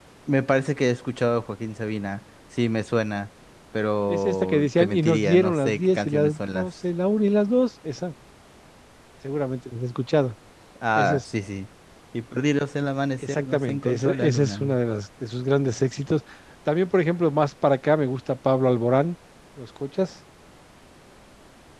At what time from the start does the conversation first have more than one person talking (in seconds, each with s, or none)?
4.1 s